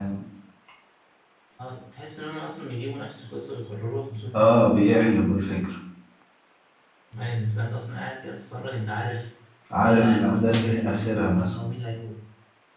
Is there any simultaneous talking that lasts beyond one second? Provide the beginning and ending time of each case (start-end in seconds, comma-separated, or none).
9.8-11.6